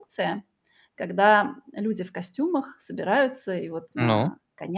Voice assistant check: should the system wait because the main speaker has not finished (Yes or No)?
Yes